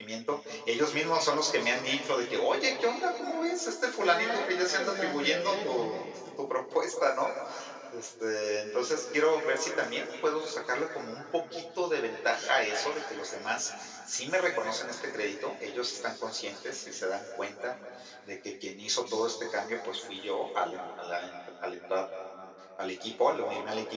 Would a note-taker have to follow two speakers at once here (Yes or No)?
Yes